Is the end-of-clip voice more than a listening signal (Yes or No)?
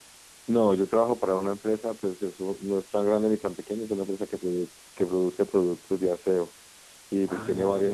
No